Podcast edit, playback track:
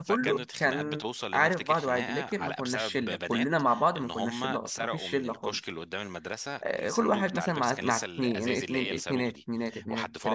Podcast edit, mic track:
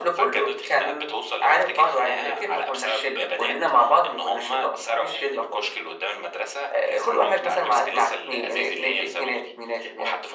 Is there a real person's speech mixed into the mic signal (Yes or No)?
No